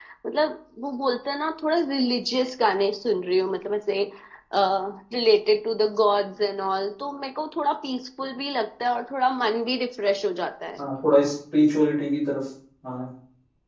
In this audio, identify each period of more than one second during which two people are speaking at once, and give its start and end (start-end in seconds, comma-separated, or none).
none